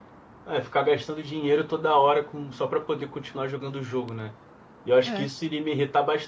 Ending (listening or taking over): listening